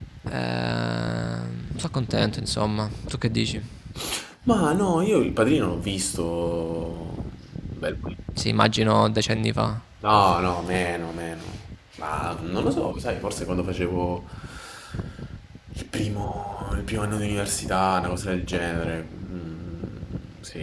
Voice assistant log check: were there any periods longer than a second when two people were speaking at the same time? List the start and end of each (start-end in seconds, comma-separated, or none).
none